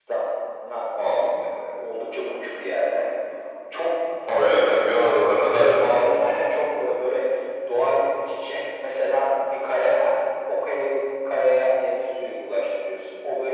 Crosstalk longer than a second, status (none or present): none